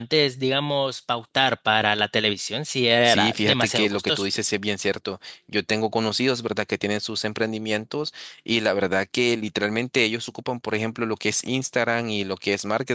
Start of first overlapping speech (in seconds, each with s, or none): 3.0 s